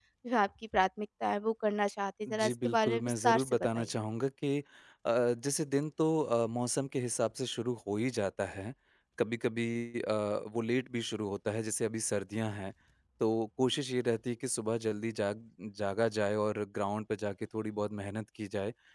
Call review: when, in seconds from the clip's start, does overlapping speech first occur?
2.3 s

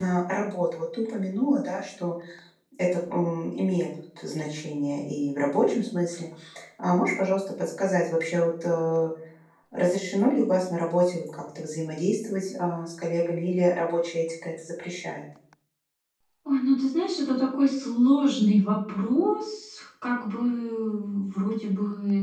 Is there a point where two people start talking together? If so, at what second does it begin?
none

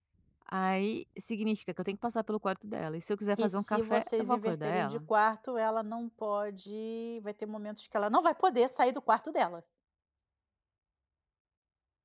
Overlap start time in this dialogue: 3.4 s

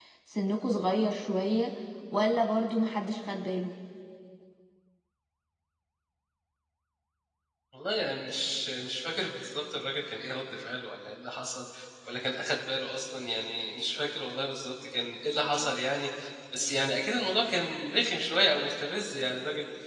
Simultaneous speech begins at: none

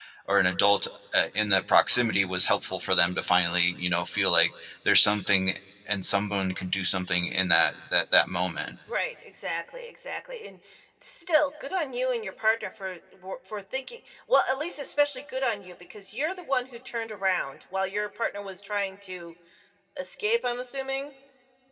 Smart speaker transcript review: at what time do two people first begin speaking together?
none

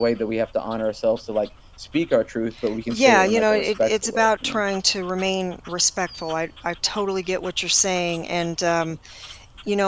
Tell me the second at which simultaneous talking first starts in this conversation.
2.9 s

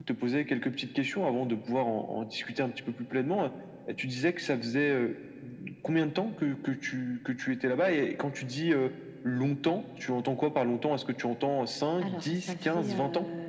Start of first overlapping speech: 12.0 s

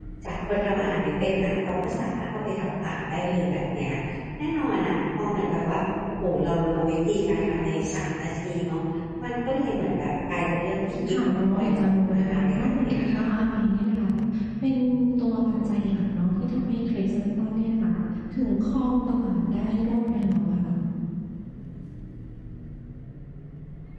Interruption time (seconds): 11.1 s

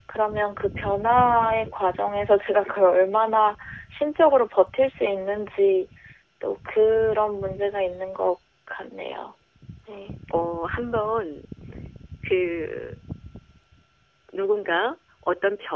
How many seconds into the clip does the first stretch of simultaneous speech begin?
none

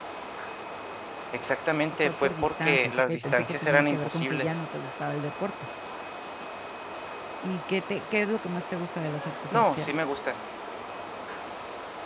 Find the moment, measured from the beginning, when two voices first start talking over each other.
2.0 s

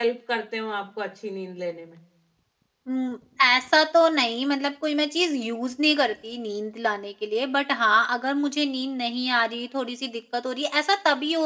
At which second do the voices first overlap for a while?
none

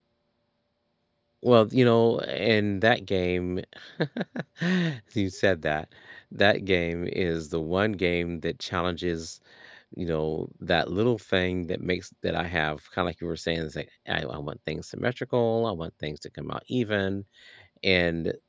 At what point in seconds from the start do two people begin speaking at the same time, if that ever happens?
none

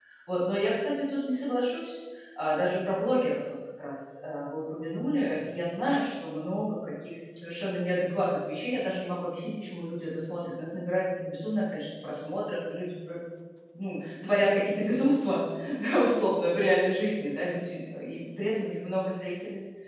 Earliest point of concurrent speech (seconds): none

